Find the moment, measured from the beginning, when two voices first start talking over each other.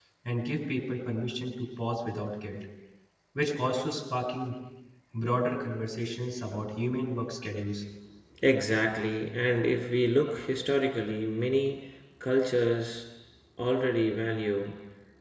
none

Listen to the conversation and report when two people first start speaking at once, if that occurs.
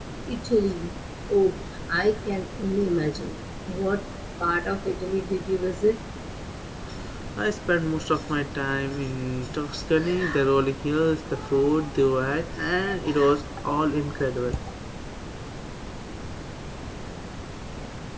none

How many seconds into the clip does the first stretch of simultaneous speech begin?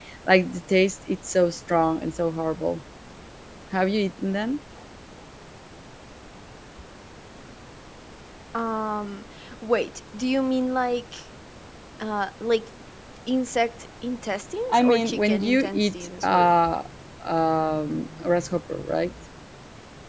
15 s

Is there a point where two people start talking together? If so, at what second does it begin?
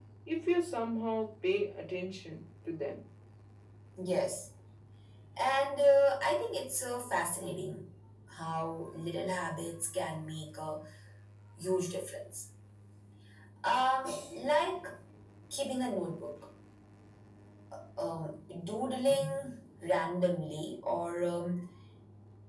none

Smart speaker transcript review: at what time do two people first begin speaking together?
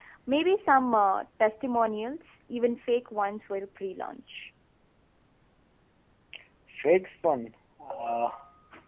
none

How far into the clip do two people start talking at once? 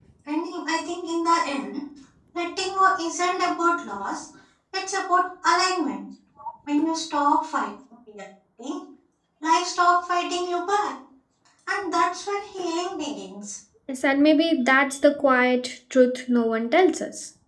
none

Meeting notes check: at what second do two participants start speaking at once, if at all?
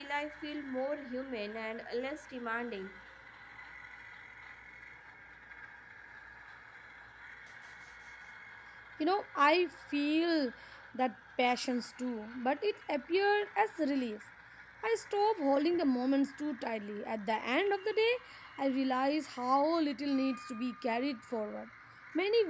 none

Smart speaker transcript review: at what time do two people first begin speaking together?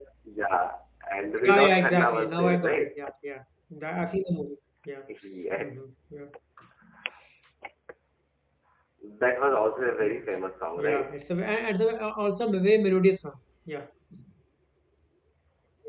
1 s

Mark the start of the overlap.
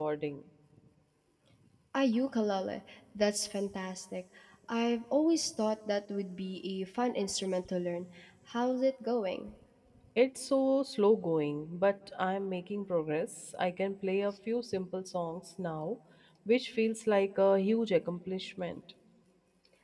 none

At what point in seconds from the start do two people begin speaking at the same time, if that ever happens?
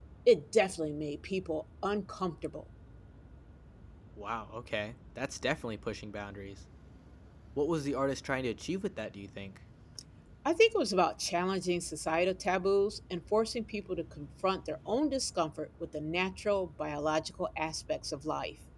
none

